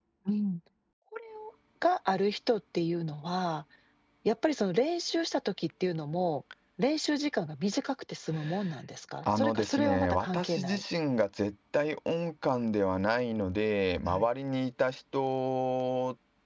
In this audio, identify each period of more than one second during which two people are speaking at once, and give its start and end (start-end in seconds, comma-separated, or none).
9.2-10.8